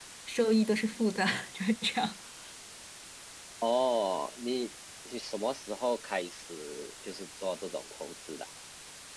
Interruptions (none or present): none